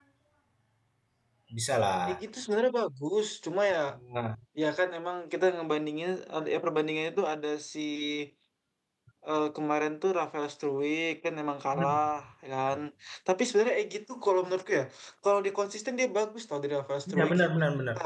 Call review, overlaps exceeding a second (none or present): none